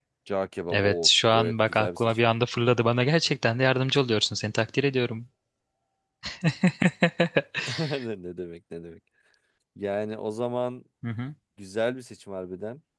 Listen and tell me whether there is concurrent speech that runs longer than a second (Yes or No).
Yes